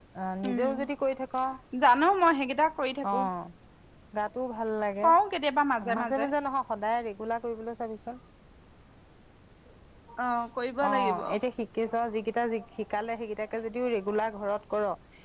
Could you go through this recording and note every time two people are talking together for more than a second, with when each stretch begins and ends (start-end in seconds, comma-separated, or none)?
none